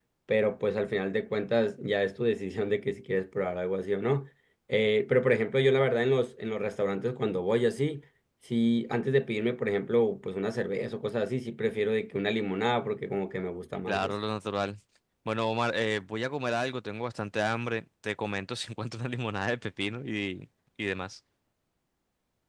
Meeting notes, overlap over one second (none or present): none